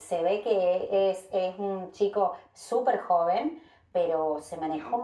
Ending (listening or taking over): listening